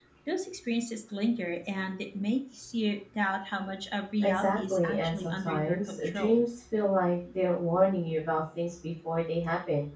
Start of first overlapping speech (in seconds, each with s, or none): 4.2 s